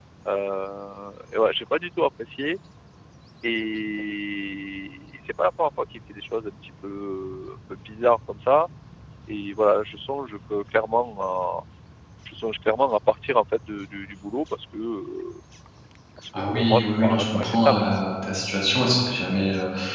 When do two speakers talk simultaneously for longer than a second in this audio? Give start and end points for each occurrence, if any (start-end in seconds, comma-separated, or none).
16.5-17.8